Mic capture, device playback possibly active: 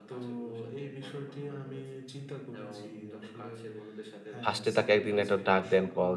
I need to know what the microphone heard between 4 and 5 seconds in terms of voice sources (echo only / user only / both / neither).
both